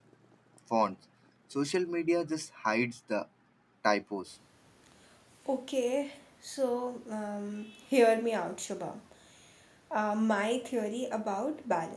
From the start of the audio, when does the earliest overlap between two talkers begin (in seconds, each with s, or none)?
none